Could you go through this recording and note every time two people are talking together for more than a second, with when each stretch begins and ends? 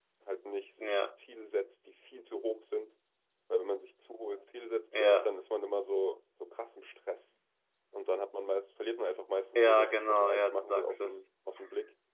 9.5-11.2

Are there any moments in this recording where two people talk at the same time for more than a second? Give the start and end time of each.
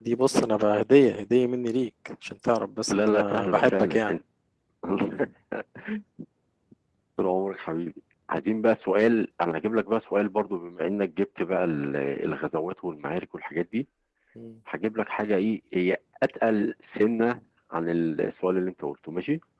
2.9-4.1

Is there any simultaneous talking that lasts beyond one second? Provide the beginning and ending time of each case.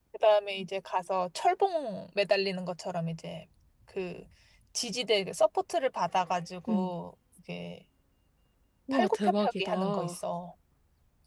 8.9-10.2

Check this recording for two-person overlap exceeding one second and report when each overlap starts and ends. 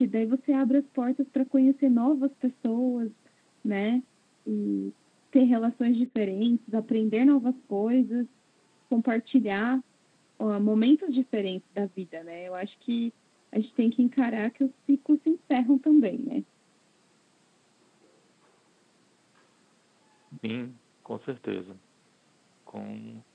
none

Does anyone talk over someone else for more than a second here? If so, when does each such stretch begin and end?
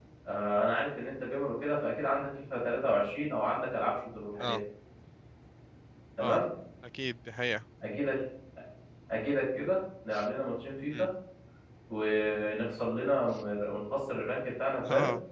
none

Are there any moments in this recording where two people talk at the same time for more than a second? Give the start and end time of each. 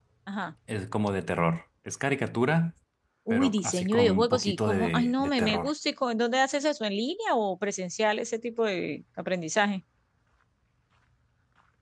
3.3-5.7

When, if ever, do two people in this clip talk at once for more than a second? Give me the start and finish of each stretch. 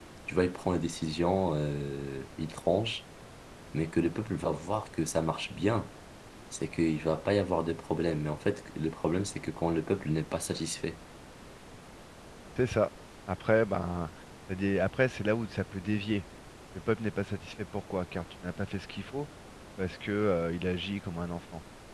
none

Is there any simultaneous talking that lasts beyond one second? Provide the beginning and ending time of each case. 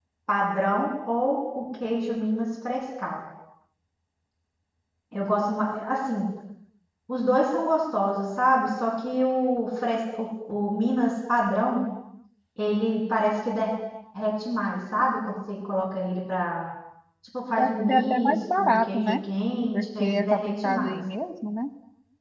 17.6-19.1, 19.7-21.0

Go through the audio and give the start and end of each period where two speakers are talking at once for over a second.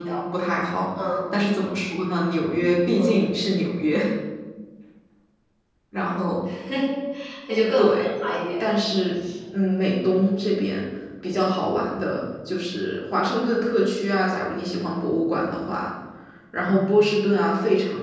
none

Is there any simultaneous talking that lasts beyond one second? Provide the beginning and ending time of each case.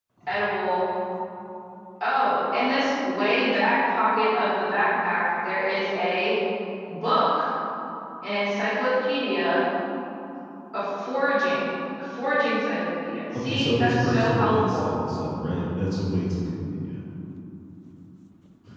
13.3-14.9

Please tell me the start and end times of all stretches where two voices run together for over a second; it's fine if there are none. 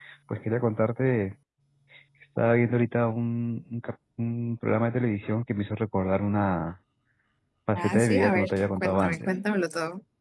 7.8-9.3

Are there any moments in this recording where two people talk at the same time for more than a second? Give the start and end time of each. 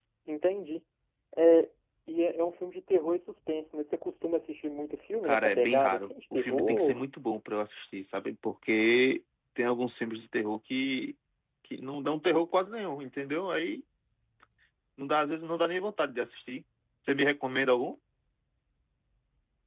5.2-7.0

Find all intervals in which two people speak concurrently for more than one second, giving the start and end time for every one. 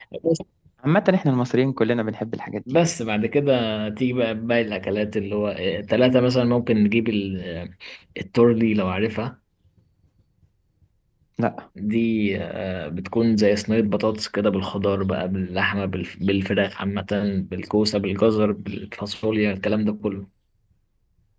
none

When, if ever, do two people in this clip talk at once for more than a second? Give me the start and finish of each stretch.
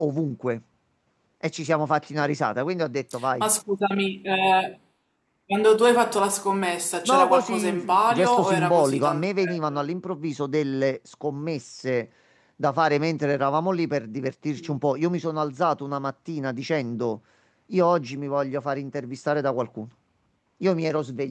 7.0-9.8

